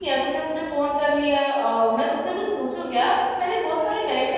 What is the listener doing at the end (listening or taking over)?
taking over